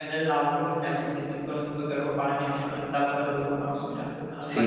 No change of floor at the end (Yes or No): No